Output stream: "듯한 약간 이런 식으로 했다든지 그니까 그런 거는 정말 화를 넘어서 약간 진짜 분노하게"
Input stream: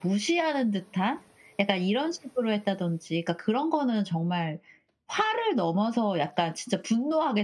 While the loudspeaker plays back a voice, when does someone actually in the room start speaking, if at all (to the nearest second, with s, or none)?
none